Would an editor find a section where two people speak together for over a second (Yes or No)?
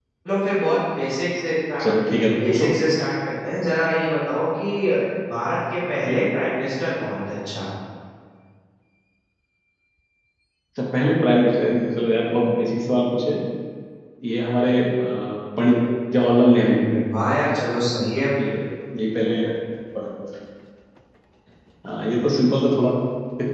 No